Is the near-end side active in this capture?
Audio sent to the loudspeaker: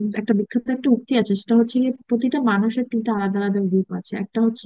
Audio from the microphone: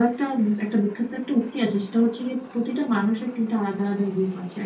No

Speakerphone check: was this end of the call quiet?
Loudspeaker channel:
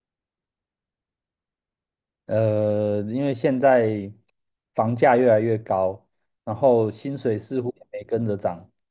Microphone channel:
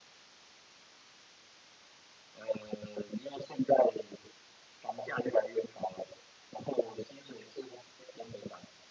Yes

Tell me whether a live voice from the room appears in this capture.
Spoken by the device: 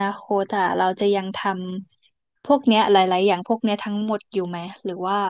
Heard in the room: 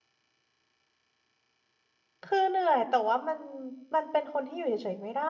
Yes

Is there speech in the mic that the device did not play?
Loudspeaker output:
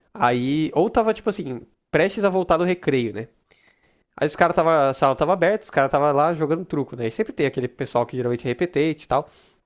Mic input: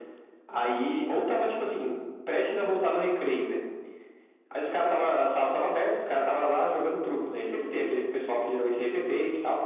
No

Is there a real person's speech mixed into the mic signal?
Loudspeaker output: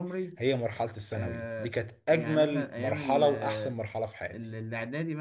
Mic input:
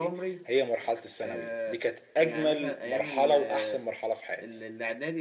No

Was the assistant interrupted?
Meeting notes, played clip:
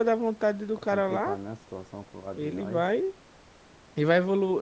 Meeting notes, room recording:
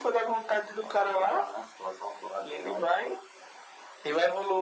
No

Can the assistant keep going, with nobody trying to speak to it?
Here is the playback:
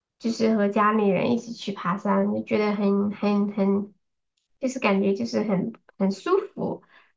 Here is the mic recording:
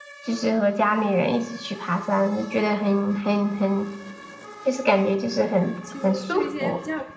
No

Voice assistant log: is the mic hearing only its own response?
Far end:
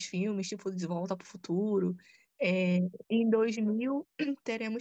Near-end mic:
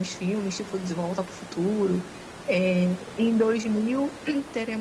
Yes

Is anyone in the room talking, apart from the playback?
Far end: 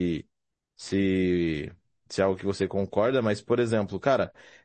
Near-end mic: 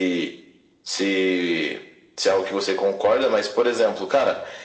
No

